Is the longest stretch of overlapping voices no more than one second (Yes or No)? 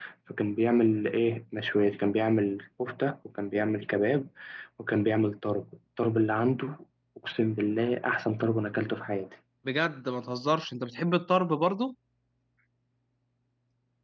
Yes